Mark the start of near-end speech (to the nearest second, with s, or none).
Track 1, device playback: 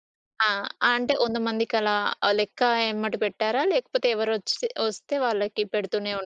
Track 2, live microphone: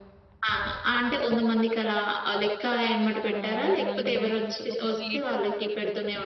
3 s